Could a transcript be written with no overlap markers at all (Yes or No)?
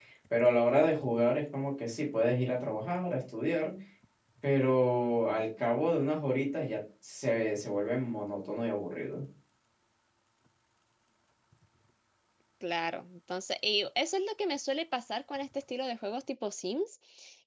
Yes